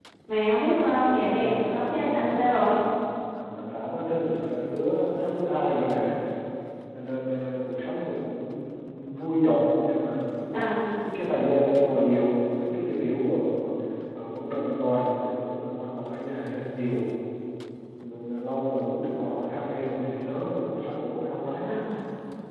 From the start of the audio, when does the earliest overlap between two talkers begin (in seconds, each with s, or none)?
0.7 s